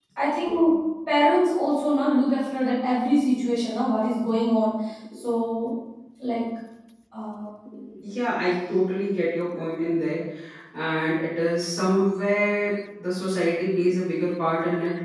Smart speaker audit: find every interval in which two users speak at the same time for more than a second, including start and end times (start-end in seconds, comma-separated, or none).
none